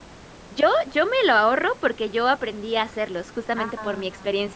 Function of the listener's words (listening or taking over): listening